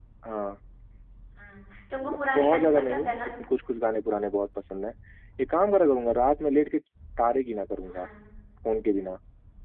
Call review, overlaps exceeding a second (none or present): present